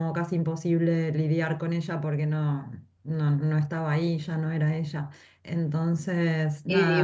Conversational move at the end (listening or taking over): taking over